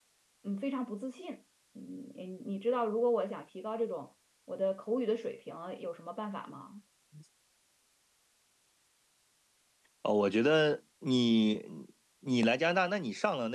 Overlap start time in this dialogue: none

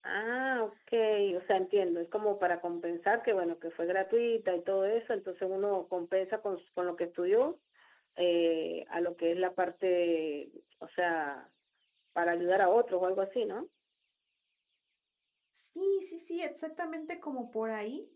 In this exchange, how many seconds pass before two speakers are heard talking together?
none

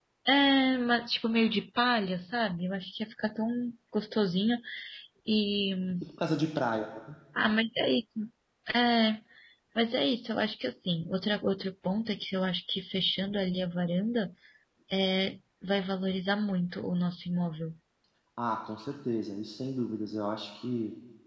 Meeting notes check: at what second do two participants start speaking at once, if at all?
none

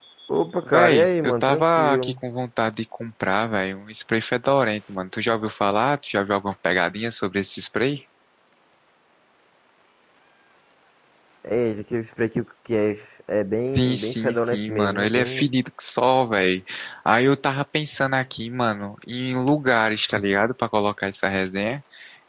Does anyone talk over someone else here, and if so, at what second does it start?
0.7 s

